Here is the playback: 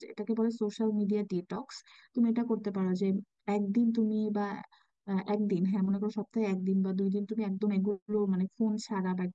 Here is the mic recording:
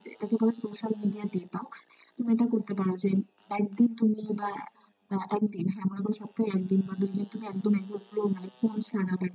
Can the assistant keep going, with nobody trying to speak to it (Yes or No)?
Yes